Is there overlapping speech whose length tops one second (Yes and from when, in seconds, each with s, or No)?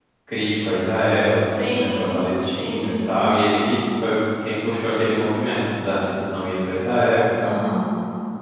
Yes, from 1.4 s